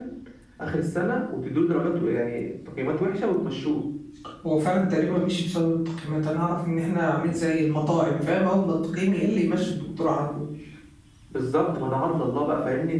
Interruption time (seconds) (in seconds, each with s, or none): none